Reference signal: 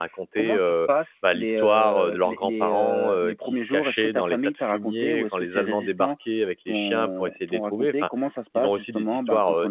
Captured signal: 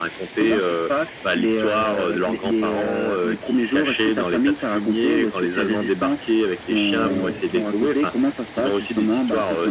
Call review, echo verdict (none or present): present